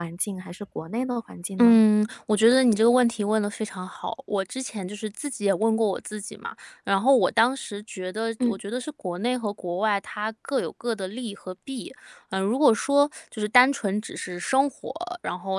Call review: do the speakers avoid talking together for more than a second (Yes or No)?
Yes